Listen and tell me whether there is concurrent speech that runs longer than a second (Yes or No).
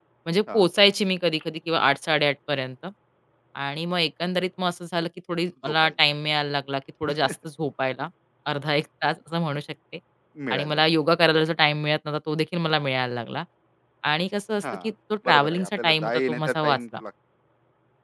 Yes